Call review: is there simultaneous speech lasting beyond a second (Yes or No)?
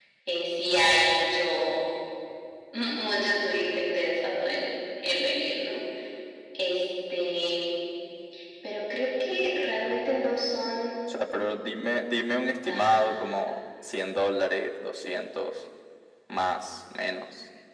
No